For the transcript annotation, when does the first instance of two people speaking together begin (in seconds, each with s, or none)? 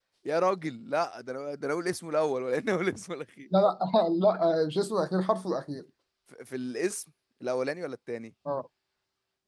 none